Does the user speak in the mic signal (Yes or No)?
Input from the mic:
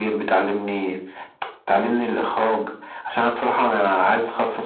No